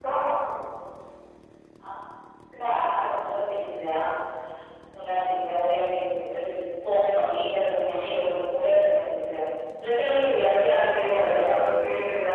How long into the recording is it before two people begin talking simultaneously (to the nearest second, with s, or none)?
10 s